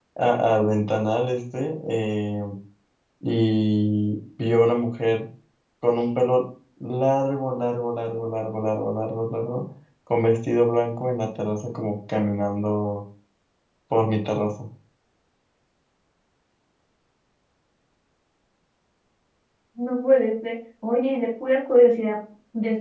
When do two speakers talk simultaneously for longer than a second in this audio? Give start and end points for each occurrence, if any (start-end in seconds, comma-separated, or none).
none